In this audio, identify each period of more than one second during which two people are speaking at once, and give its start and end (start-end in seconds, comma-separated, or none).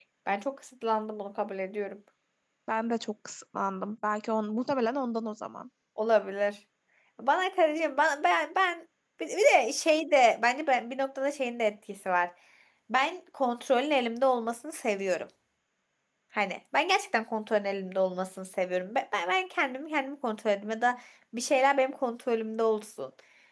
none